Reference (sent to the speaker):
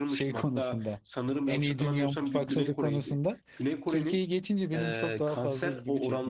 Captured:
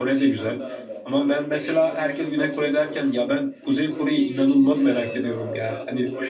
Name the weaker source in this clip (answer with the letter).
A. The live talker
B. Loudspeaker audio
B